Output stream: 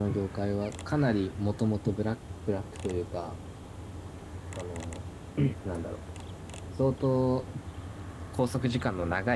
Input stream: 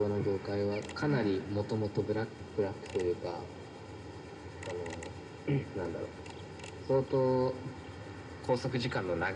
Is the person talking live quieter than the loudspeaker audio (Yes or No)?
Yes